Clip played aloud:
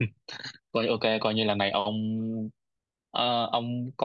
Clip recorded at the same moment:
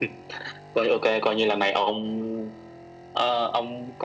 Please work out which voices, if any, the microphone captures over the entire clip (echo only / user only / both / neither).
echo only